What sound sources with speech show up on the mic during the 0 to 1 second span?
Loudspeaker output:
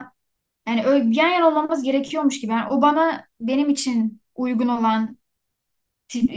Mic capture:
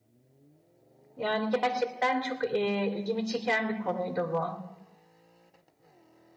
neither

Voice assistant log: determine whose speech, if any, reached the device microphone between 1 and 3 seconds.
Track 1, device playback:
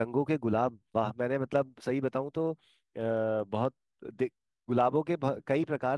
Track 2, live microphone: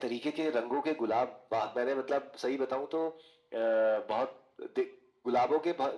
echo only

